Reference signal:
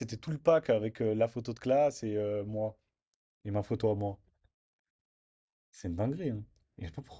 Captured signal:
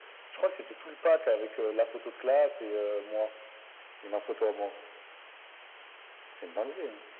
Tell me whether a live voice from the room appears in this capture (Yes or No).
No